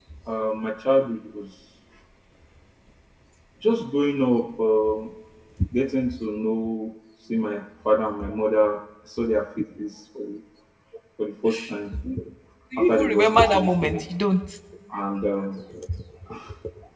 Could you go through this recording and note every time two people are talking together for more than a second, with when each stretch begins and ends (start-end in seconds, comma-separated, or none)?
12.8-14.0